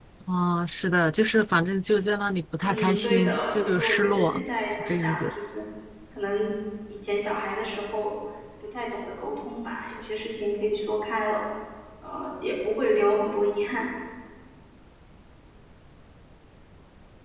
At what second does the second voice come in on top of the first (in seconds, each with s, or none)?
2.6 s